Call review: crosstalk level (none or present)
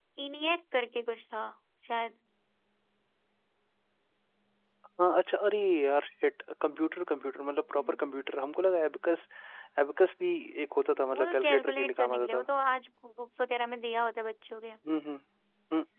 present